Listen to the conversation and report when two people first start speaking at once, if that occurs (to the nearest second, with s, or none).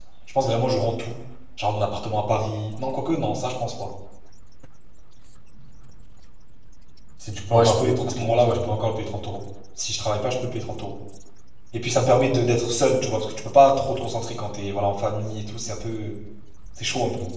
8 s